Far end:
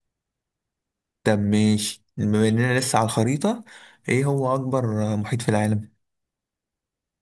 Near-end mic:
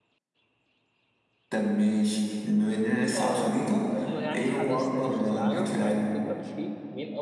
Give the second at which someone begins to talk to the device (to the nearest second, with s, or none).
3 s